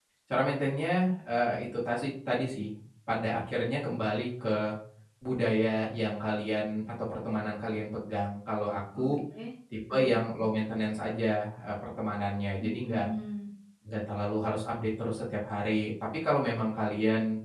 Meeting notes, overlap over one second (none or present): none